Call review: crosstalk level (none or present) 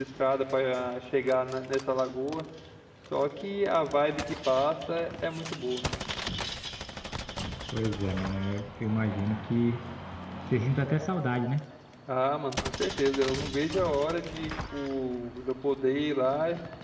none